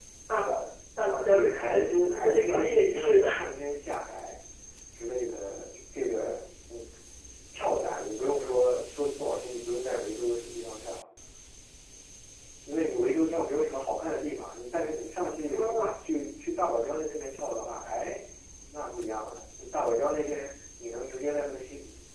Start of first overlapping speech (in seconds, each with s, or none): 1.3 s